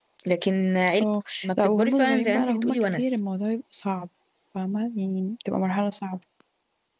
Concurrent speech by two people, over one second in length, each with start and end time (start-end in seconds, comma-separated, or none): 1.4-3.0